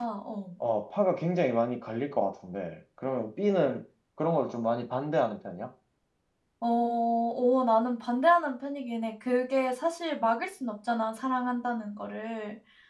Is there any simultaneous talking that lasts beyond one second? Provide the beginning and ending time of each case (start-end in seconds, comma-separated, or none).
none